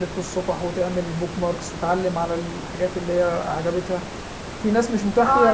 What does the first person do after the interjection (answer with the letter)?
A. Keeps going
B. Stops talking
B